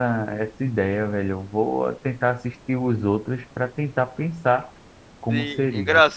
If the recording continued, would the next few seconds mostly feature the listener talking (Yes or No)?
Yes